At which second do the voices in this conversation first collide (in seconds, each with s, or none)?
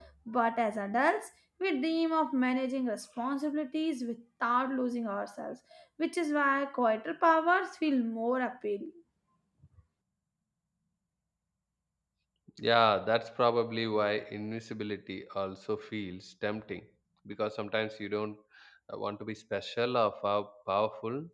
none